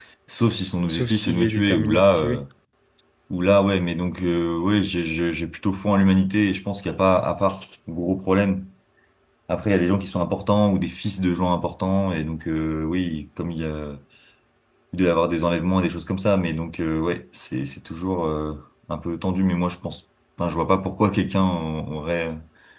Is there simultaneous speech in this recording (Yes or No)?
Yes